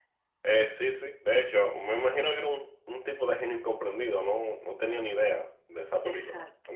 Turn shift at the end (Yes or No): Yes